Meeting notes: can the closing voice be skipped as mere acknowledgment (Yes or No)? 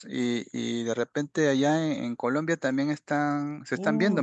No